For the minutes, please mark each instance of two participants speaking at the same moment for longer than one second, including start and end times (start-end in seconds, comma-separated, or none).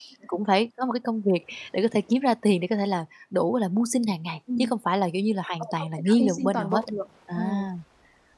5.6-6.8